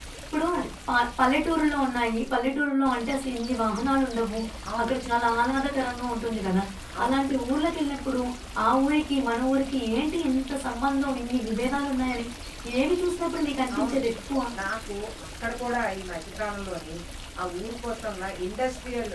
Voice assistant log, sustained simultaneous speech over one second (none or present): none